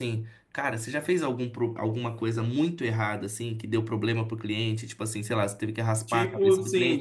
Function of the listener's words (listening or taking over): taking over